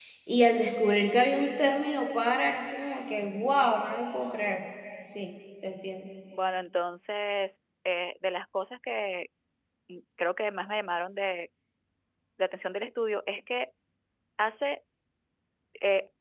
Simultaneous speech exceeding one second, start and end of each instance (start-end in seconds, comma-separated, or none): none